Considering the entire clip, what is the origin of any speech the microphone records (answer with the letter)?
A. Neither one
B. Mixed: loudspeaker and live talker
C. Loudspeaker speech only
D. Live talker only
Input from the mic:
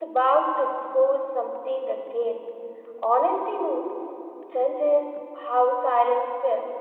D